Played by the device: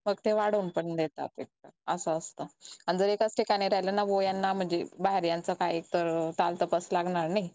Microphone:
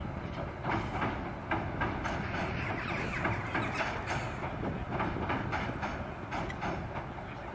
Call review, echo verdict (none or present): none